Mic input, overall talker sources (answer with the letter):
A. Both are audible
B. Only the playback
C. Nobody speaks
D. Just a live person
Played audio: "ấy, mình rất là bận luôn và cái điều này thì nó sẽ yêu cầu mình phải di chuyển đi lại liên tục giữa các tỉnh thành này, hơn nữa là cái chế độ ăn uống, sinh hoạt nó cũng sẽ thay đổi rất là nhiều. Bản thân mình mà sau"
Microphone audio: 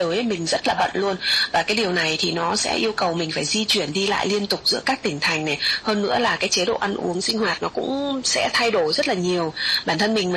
B